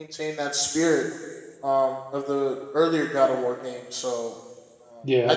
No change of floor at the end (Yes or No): Yes